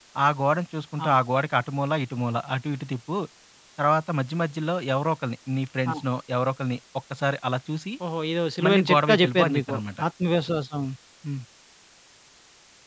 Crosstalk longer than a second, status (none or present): present